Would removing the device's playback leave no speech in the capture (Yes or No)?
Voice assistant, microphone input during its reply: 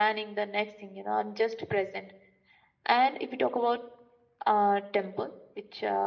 Yes